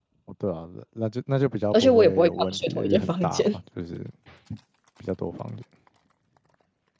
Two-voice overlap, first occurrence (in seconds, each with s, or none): 1.7 s